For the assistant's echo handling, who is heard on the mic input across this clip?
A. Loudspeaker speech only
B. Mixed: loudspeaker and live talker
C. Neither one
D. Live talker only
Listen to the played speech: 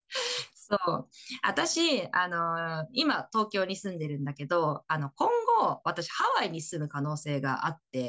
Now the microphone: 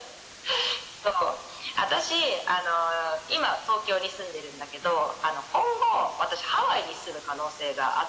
A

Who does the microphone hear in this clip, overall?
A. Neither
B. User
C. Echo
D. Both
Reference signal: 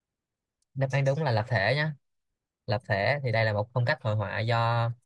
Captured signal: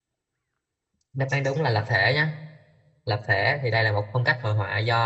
C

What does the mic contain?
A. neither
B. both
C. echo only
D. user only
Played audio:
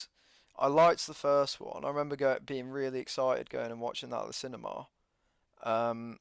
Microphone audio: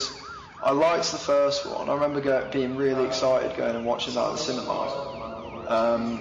B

